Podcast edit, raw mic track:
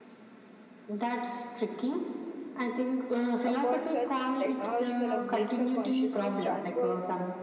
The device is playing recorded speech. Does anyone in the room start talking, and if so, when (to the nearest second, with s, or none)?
3 s